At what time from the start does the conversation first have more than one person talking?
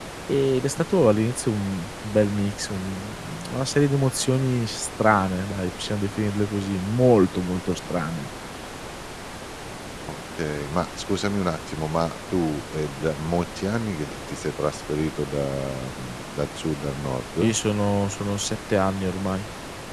none

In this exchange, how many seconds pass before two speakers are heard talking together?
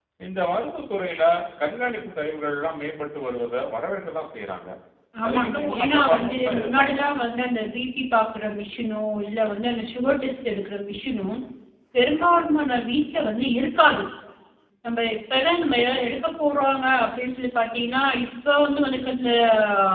5.3 s

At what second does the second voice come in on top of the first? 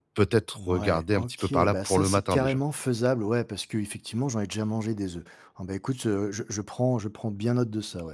0.6 s

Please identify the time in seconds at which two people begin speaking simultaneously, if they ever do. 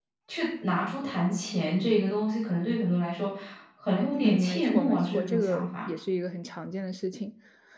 4.2 s

